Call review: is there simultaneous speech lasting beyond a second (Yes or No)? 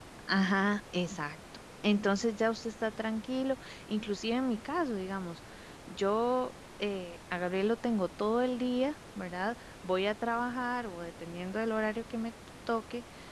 No